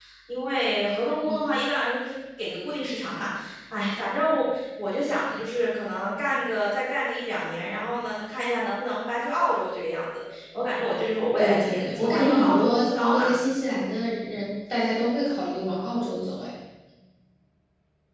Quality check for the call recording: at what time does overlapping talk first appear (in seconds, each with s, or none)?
11.4 s